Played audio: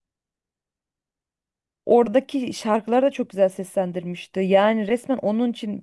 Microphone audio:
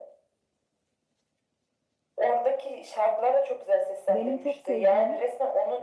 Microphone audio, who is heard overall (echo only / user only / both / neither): both